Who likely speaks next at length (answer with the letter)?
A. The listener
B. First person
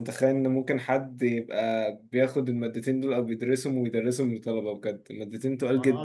A